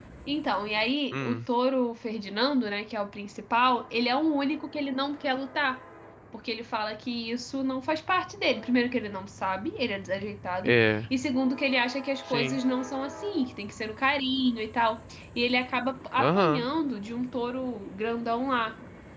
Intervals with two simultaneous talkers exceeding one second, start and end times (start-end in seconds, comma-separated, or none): none